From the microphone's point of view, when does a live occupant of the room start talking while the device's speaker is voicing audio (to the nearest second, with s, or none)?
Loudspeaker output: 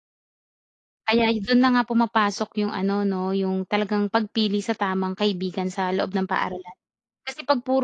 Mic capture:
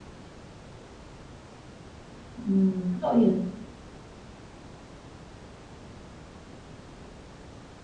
2 s